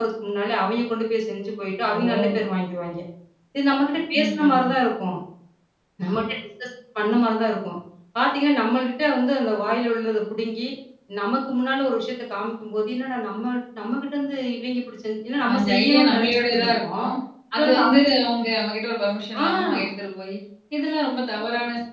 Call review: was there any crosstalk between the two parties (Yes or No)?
Yes